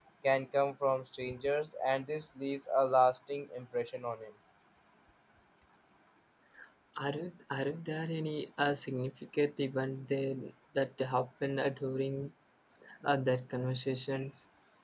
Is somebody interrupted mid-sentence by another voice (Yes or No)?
No